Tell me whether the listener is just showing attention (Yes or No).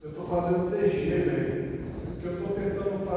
Yes